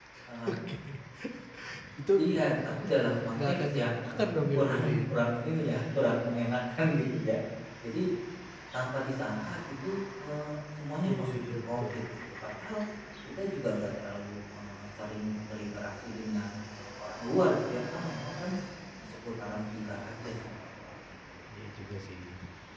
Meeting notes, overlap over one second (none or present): present